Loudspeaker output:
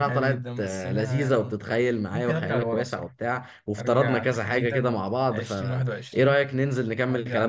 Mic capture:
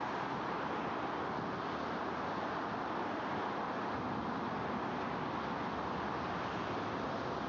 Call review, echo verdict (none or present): none